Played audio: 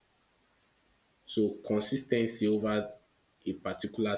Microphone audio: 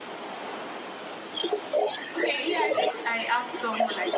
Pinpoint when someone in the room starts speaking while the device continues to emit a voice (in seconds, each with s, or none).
2.2 s